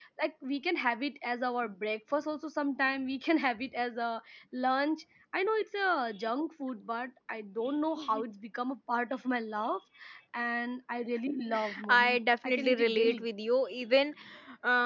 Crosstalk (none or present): present